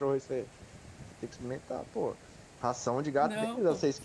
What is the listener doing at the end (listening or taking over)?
listening